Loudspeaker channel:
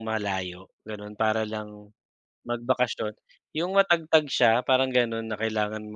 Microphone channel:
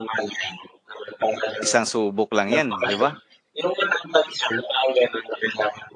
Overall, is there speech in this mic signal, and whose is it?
both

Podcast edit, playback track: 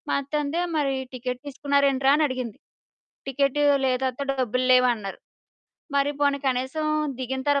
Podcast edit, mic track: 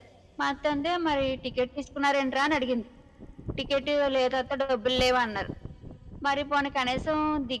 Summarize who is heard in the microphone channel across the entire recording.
echo only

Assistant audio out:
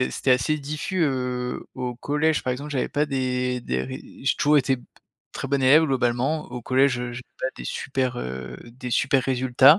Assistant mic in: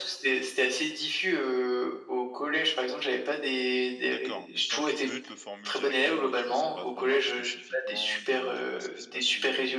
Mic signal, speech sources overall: both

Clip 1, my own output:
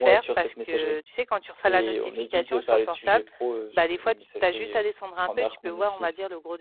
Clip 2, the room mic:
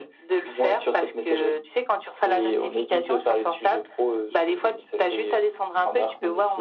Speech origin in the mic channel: echo only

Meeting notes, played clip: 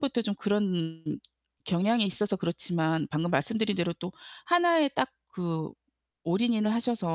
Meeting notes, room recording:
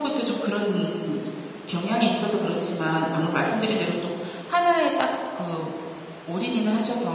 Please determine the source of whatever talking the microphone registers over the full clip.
echo only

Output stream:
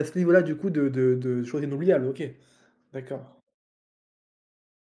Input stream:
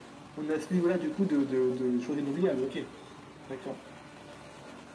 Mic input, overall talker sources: echo only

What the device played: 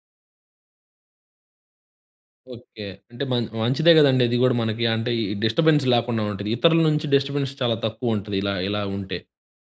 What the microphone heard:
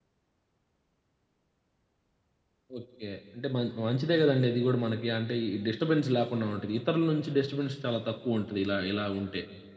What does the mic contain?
echo only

